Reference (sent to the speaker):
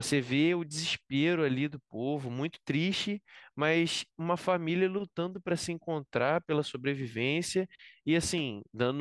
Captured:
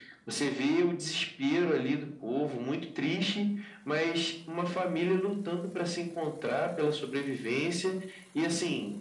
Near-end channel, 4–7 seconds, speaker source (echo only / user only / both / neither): echo only